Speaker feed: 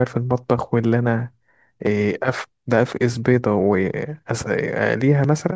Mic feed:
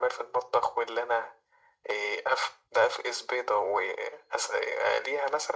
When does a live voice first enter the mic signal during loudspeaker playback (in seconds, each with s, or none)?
none